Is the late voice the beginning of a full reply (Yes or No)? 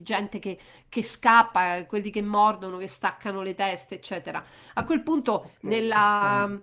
No